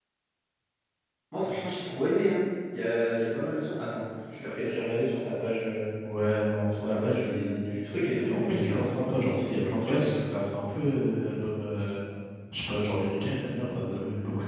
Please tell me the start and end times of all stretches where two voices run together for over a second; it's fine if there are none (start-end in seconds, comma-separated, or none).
6.8-8.8